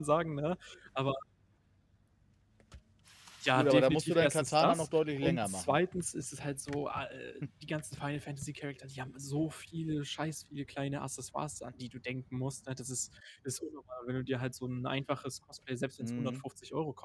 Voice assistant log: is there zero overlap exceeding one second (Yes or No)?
No